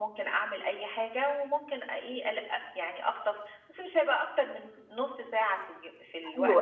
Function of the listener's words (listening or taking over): taking over